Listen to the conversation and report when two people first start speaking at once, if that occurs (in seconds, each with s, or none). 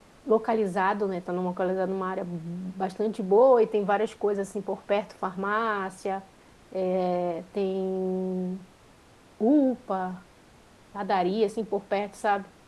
none